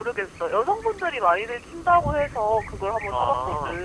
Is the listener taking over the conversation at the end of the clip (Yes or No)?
Yes